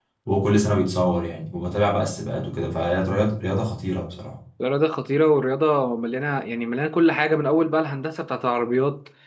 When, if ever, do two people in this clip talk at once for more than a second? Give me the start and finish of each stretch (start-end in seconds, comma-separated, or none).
none